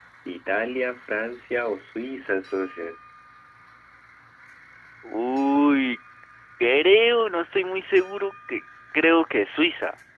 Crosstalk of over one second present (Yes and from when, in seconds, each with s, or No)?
No